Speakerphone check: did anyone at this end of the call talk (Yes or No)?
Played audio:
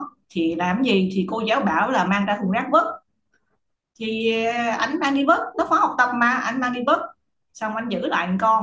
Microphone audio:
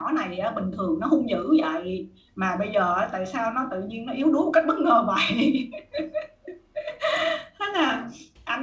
Yes